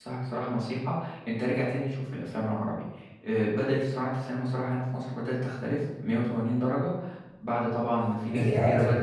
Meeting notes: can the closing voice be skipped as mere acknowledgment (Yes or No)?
No